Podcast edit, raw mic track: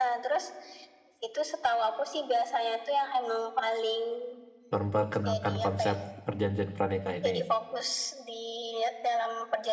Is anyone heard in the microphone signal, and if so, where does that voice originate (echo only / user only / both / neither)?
both